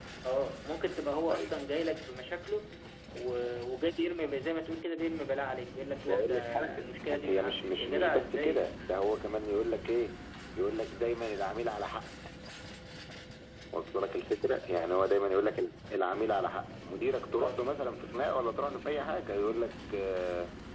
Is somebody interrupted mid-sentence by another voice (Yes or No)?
Yes